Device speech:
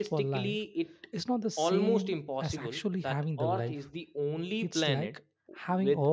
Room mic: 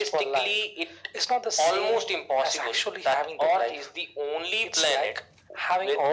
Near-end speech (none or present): none